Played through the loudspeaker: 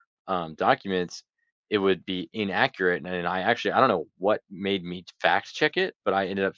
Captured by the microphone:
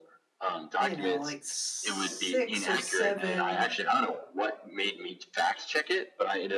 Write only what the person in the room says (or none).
you know, like 6 or 7